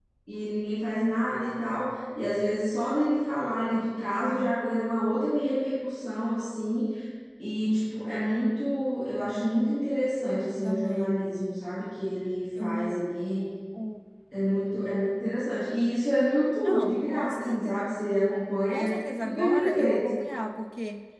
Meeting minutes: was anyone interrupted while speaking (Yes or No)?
Yes